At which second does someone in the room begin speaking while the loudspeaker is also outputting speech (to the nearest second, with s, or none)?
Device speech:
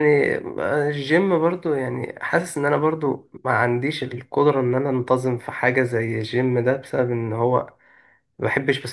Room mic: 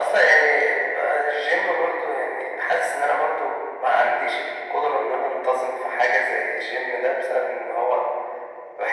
none